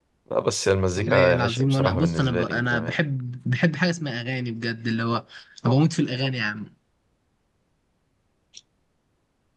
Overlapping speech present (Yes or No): Yes